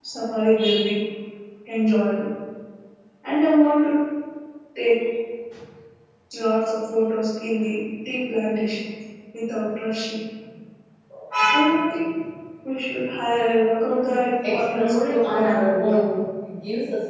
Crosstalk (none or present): present